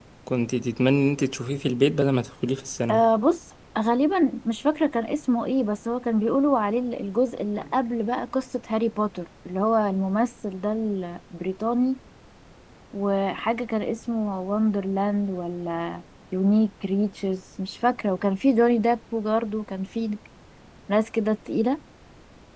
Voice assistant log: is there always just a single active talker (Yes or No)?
Yes